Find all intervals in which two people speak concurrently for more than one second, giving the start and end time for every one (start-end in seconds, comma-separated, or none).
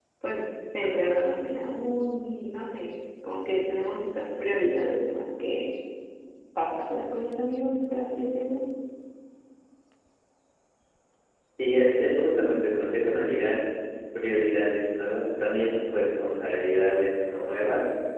none